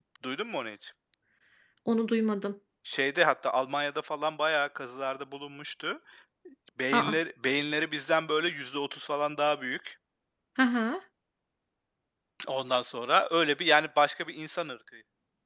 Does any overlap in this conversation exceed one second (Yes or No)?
No